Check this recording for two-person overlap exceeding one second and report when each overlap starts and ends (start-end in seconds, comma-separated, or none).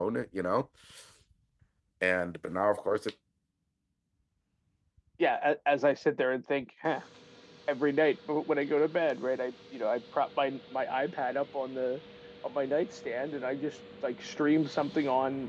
none